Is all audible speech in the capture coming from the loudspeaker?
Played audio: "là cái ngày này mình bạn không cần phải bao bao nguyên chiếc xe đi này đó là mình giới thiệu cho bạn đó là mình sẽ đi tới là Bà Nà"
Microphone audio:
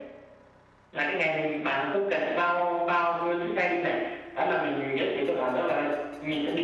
Yes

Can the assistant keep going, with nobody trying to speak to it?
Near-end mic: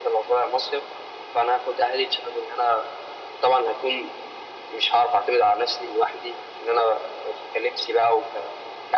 Yes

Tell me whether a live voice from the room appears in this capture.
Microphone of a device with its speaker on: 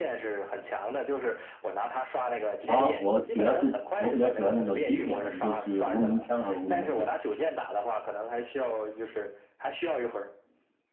Yes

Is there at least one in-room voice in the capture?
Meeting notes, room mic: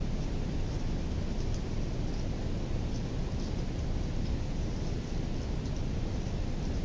No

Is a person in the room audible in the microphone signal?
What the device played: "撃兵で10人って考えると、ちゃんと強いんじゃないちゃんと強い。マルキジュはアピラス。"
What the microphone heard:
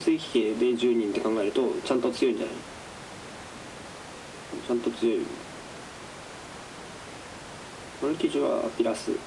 No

